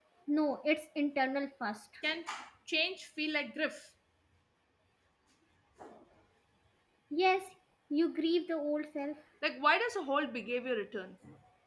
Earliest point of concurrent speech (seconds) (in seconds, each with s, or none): none